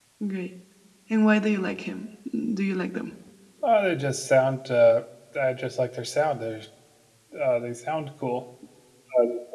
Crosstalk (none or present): none